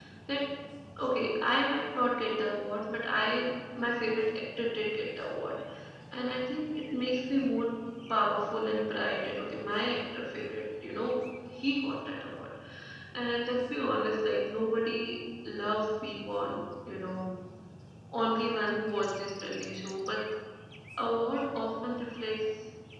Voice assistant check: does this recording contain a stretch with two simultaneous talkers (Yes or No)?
No